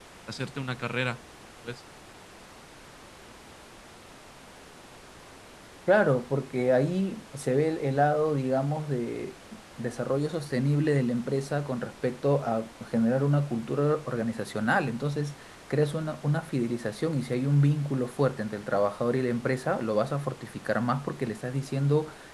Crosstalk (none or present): none